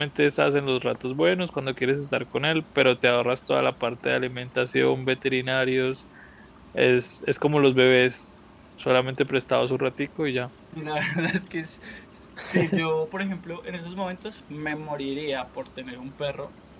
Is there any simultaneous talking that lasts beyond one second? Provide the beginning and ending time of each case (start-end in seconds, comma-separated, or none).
none